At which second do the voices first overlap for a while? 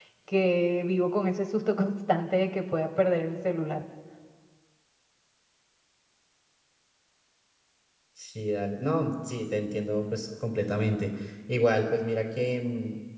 none

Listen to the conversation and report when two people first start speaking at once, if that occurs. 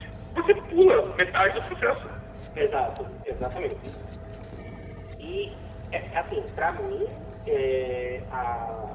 none

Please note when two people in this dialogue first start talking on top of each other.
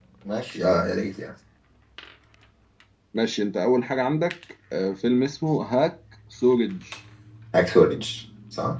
none

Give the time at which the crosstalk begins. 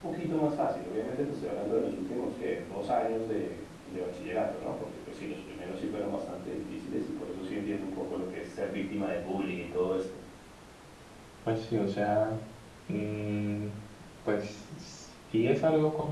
none

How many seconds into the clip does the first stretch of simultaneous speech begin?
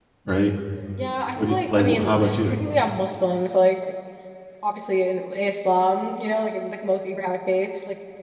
1.4 s

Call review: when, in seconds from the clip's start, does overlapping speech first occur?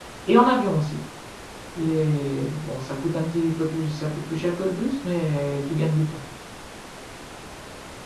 none

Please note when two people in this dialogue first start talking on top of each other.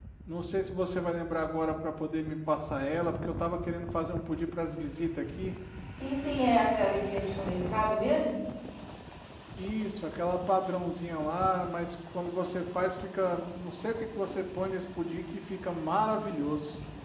none

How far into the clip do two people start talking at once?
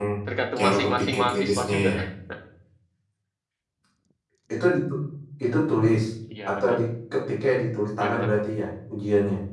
0.6 s

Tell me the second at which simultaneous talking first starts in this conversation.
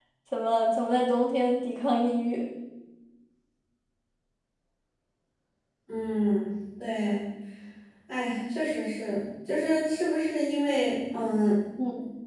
none

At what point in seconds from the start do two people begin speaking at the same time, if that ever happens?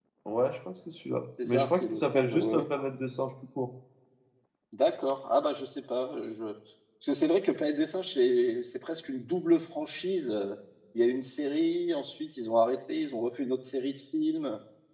1.4 s

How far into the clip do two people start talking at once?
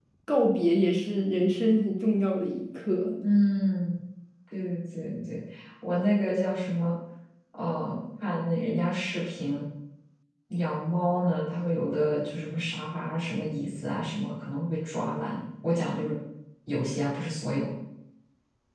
none

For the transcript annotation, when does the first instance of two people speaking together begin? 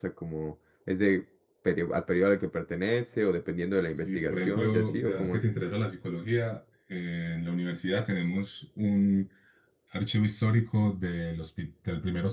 3.9 s

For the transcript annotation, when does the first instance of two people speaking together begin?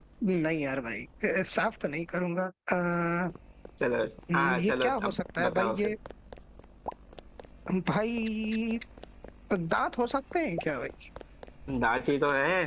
4.3 s

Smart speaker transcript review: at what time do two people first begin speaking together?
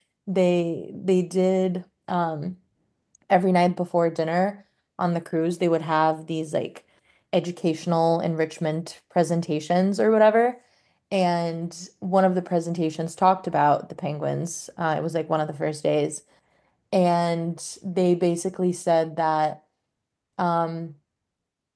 none

